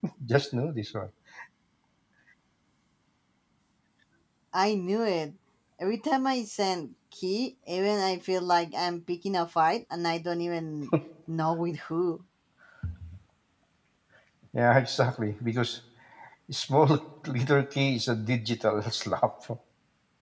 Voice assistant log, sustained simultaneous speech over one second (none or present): none